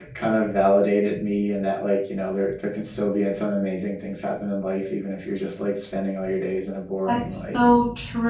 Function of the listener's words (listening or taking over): taking over